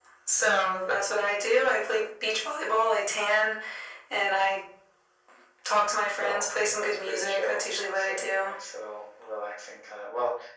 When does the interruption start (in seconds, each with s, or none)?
6.2 s